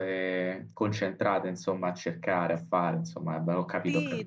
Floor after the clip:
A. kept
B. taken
B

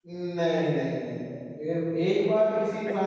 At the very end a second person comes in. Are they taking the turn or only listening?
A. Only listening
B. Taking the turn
A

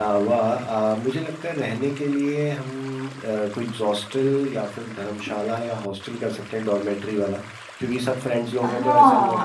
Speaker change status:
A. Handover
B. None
A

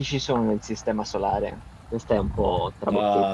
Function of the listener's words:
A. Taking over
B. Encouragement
A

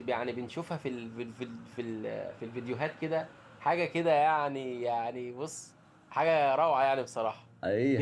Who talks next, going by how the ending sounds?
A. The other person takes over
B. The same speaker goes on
A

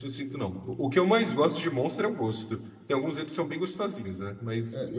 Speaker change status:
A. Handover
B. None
A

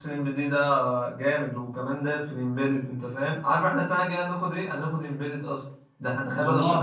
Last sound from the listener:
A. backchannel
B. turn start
A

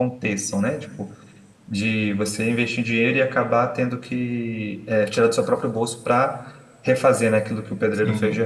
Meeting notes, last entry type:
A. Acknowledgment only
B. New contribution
B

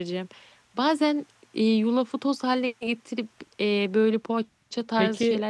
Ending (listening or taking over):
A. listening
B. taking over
B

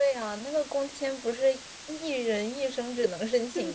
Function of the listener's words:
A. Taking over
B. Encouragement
A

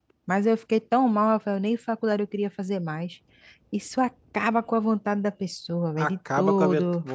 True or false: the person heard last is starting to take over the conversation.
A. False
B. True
B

